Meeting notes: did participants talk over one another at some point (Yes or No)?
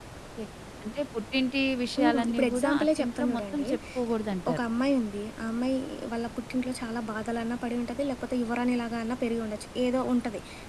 Yes